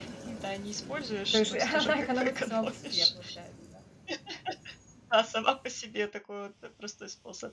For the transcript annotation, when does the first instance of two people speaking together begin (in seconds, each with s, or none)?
1.3 s